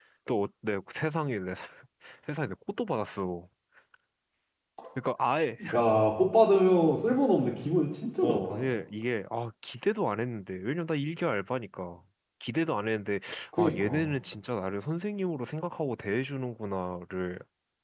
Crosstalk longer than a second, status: none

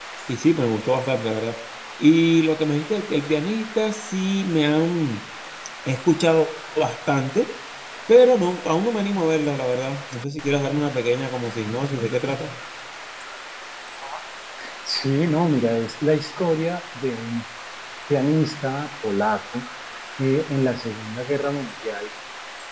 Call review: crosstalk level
none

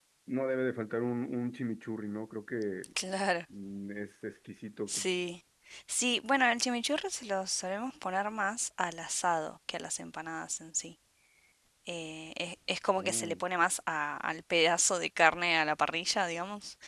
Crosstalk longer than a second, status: none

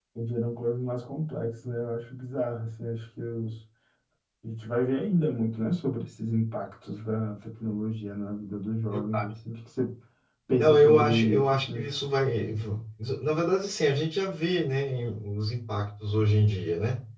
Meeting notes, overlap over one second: present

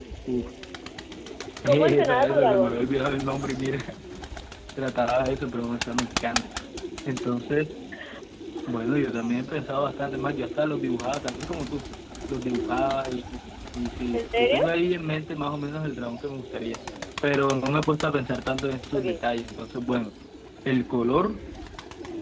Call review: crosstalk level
present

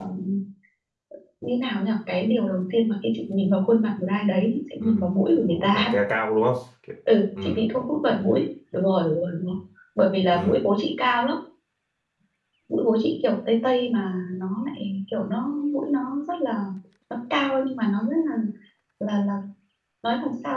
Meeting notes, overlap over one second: none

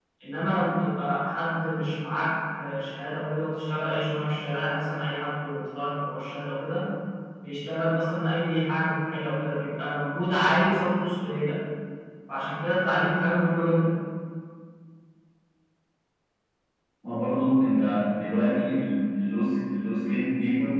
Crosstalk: none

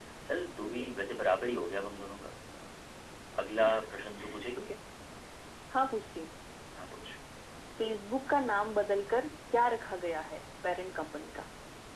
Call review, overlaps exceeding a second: none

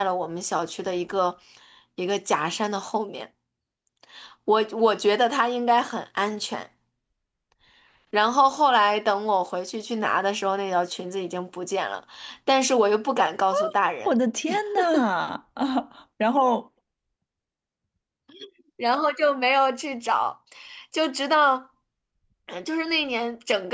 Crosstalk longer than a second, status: none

